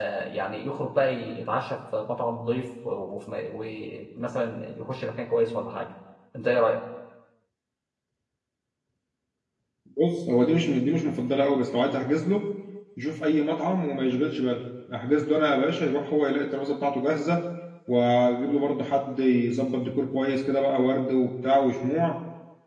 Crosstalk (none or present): none